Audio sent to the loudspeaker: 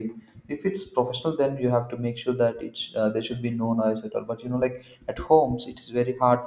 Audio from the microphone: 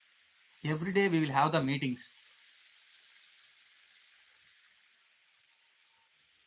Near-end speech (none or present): present